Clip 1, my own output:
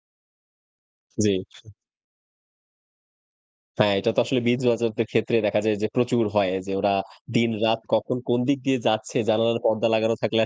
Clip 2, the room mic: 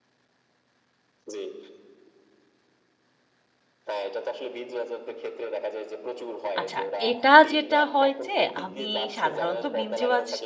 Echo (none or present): present